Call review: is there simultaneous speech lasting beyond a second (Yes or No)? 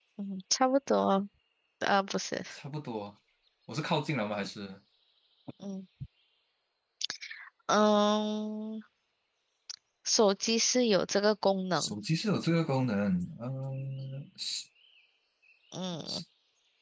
No